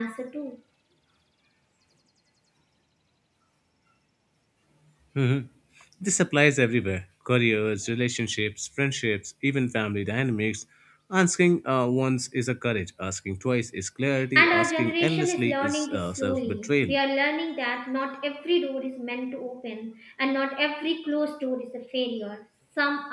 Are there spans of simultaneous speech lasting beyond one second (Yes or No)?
Yes